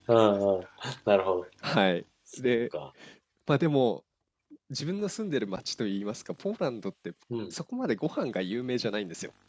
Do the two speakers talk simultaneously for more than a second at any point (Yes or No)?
No